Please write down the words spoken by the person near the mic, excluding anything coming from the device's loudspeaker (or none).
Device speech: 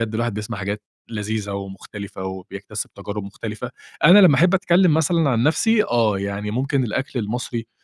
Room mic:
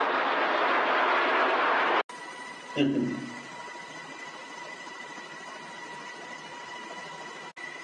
أهم.